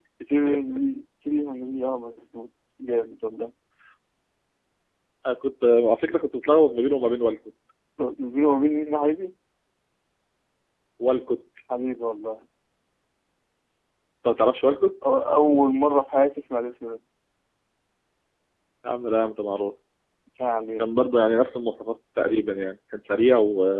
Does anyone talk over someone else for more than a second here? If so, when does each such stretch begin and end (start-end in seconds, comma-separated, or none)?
none